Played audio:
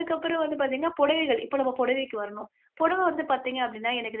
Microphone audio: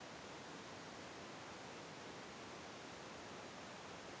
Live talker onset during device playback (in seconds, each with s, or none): none